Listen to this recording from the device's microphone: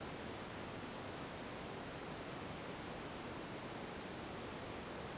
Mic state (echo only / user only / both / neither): neither